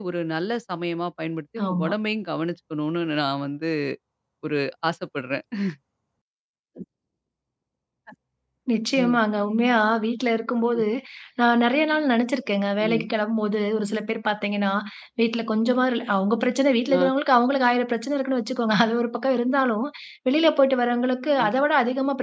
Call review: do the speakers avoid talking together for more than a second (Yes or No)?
Yes